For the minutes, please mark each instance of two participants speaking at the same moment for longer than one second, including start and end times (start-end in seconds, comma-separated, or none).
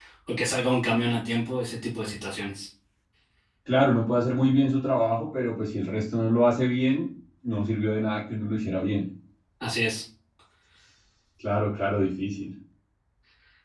none